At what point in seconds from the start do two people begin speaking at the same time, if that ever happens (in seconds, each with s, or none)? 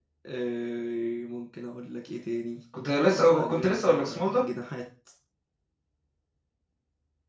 3.1 s